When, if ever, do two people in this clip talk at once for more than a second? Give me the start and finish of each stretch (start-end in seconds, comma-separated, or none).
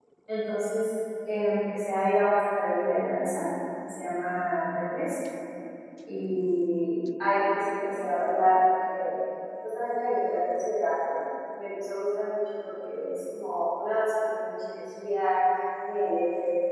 none